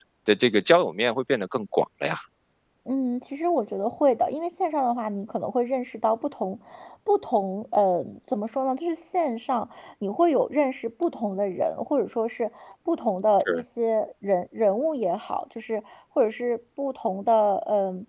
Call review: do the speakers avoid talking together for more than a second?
Yes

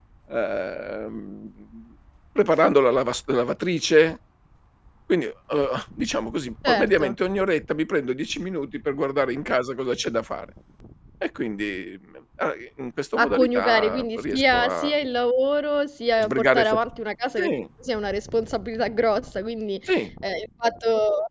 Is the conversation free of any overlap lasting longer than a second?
No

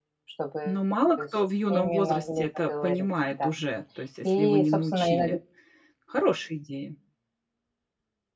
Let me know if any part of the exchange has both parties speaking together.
Yes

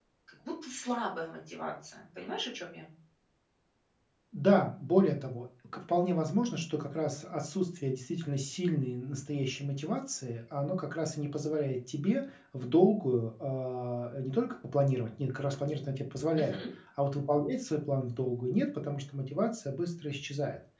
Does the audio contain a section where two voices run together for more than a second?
No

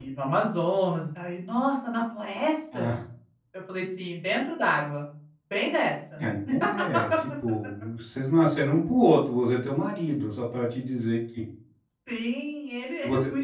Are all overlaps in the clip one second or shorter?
Yes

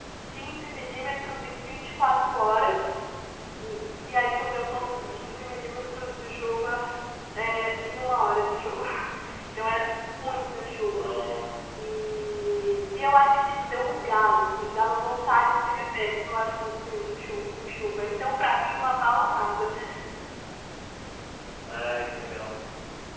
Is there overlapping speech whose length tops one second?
No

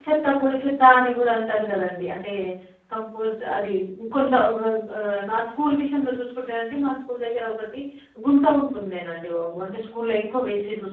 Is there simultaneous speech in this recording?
No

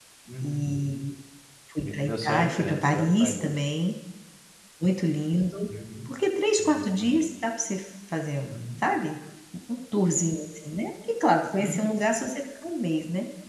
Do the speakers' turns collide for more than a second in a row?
Yes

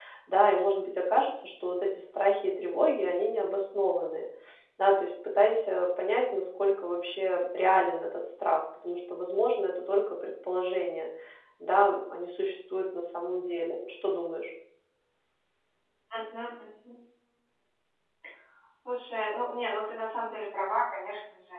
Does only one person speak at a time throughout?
Yes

